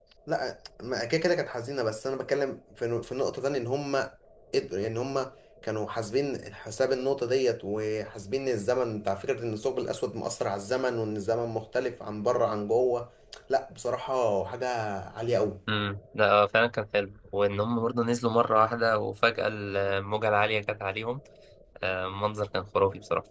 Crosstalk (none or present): none